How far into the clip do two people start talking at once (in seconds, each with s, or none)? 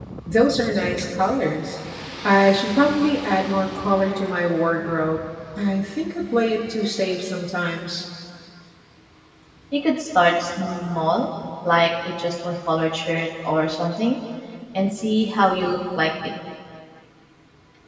none